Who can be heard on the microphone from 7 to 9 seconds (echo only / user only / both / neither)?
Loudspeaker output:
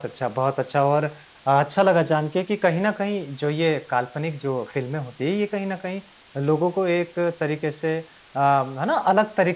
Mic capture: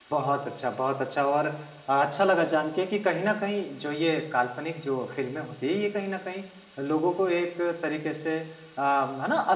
echo only